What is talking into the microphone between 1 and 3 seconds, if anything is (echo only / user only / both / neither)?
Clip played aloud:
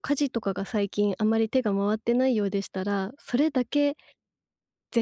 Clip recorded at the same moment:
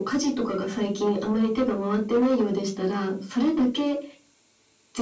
echo only